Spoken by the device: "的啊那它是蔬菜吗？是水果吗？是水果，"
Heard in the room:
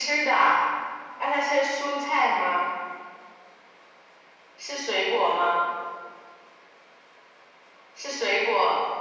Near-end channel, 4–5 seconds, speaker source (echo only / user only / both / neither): echo only